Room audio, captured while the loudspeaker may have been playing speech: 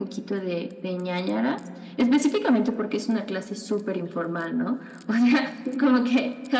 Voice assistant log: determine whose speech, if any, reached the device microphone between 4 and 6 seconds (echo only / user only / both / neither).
echo only